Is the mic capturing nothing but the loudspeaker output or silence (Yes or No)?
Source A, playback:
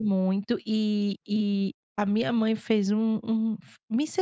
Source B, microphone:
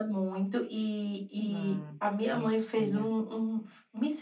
No